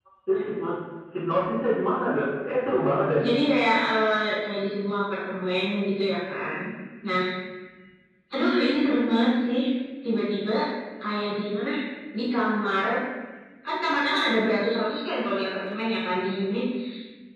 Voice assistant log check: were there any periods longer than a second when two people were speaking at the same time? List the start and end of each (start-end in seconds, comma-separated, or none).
none